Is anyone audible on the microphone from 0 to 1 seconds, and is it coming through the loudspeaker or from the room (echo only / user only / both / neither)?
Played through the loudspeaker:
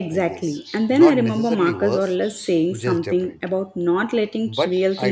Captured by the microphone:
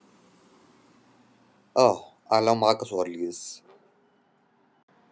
neither